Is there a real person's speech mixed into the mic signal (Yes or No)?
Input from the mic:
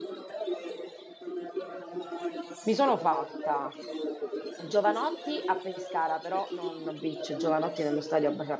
Yes